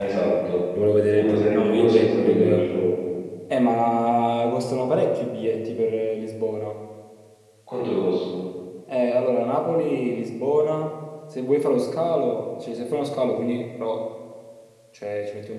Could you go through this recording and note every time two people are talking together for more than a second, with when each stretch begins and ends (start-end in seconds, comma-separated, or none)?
1.1-2.8